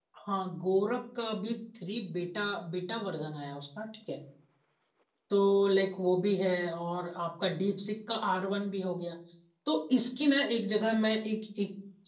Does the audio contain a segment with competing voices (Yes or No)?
No